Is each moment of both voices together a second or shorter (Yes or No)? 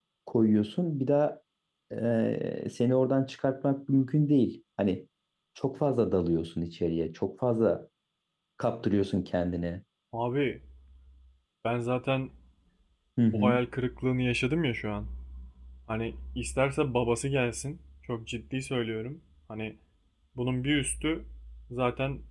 Yes